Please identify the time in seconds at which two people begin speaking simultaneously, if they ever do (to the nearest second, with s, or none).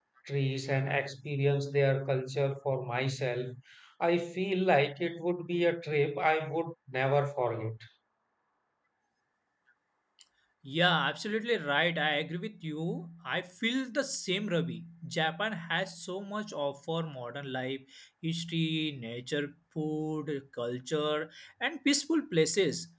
none